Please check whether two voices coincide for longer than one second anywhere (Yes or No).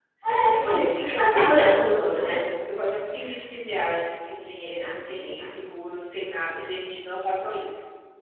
Yes